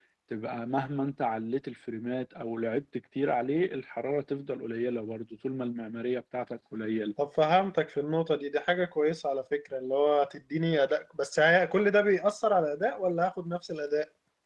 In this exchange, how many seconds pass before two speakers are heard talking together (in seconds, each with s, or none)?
none